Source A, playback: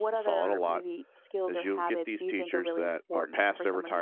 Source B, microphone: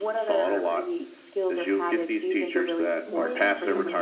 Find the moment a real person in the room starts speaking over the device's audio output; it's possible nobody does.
3.0 s

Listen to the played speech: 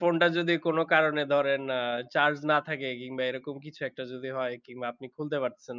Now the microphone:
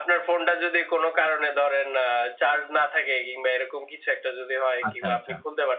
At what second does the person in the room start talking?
4.9 s

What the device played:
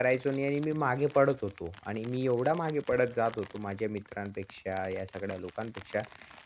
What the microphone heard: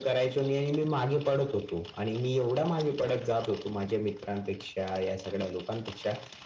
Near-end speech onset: none

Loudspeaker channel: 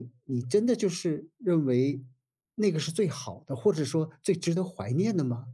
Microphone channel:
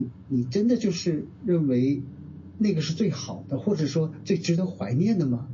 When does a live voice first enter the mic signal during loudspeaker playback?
none

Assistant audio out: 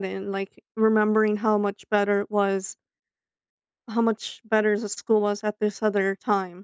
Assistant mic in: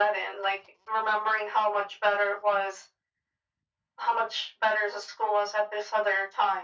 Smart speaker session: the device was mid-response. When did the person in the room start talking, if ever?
none

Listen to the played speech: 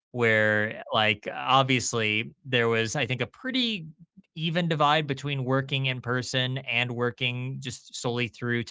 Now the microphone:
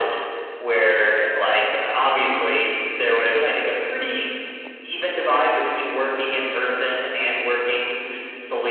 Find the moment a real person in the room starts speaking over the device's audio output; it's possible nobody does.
none

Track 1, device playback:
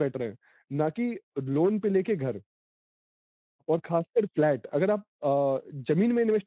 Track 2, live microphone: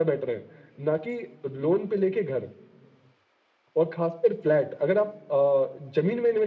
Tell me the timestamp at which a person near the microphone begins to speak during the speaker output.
none

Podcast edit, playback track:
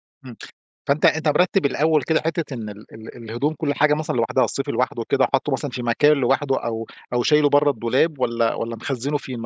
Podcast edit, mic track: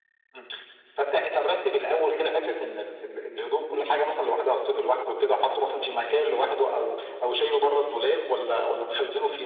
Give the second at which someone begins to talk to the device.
none

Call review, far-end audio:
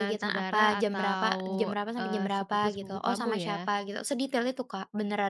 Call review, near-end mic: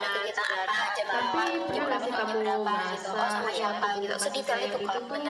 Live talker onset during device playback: 1.1 s

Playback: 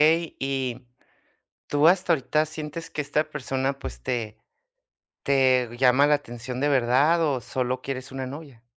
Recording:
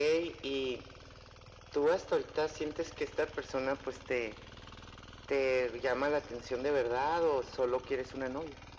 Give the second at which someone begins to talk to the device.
none

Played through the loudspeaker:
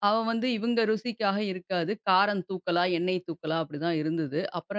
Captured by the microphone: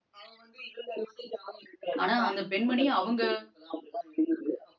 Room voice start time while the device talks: 2.0 s

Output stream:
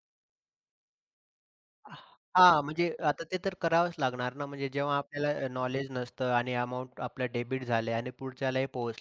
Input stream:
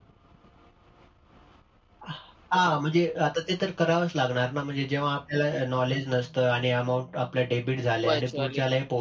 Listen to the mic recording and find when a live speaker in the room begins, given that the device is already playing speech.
8.1 s

